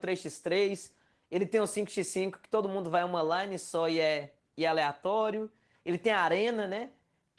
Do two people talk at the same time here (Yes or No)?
No